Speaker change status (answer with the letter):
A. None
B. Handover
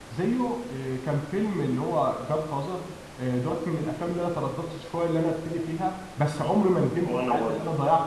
A